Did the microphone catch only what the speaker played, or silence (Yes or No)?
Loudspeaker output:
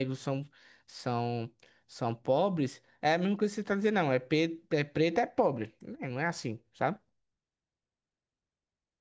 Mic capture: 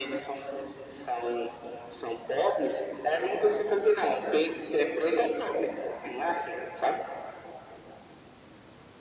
Yes